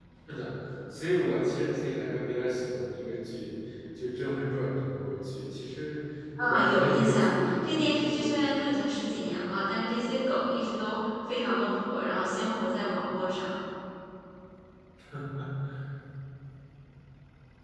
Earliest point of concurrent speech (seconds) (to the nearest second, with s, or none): 6 s